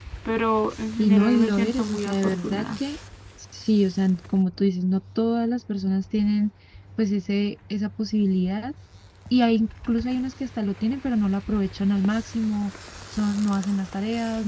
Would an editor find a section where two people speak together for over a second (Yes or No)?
Yes